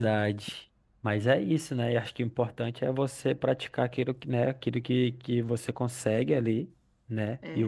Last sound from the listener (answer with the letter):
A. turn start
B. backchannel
B